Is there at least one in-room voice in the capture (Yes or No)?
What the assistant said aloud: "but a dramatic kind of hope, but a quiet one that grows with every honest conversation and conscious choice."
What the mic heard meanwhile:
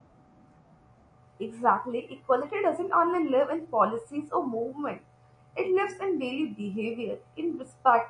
Yes